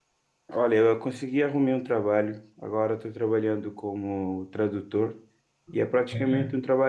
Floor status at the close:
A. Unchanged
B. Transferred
A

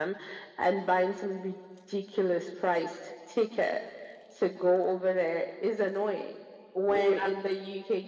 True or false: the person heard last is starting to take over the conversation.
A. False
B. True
A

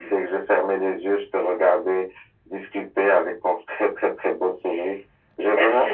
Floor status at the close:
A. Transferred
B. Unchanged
A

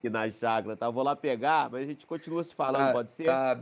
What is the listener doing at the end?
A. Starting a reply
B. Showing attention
A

